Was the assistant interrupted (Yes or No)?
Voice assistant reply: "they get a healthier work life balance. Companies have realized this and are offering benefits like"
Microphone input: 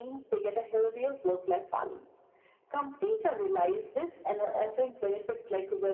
No